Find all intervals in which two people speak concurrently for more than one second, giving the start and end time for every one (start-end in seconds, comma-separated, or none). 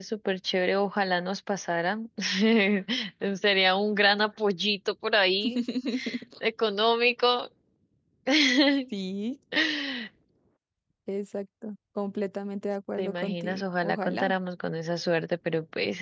13.0-14.3